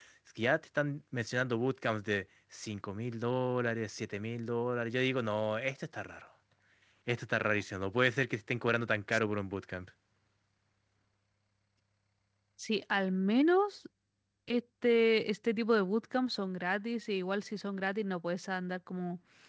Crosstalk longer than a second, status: none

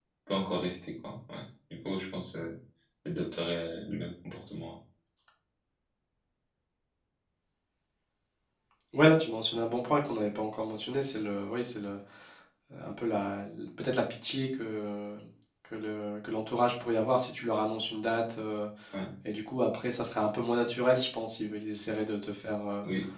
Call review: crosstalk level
none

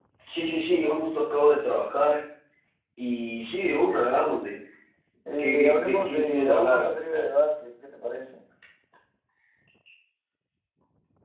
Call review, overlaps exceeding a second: present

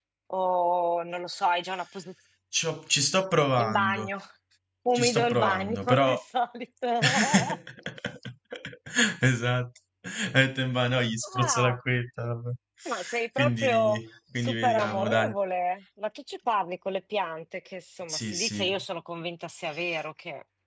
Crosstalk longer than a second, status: present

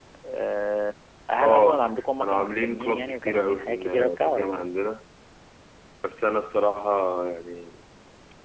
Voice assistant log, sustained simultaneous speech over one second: present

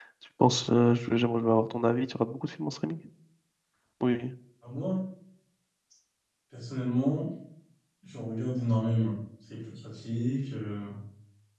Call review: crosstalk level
none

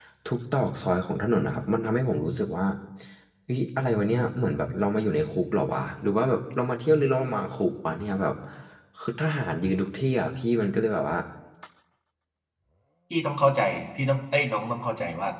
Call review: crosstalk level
none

